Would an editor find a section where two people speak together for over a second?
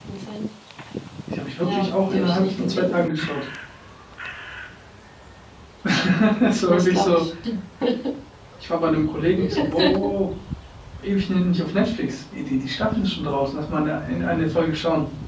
Yes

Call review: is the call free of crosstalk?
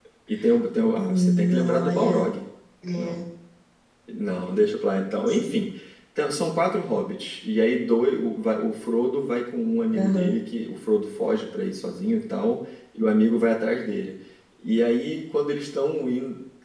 No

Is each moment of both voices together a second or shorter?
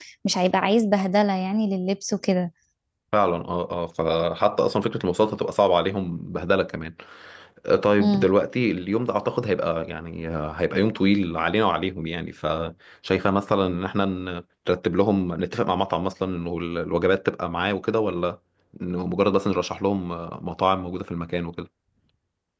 Yes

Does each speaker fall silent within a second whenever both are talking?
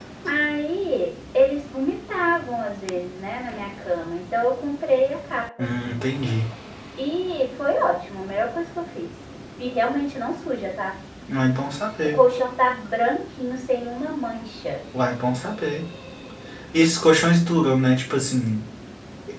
Yes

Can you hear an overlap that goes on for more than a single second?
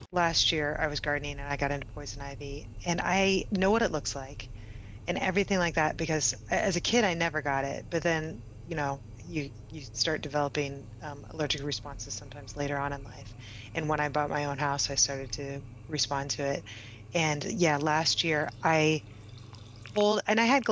No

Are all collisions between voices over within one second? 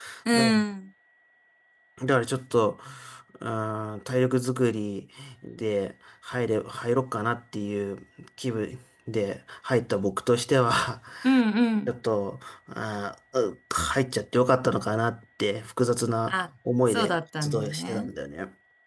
No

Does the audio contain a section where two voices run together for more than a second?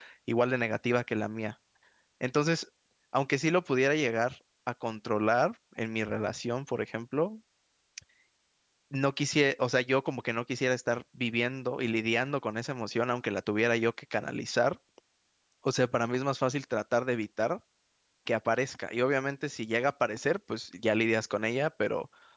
No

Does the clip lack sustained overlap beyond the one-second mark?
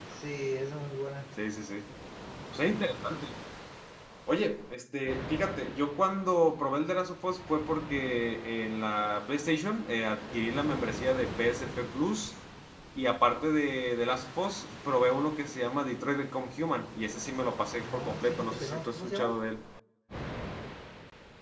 No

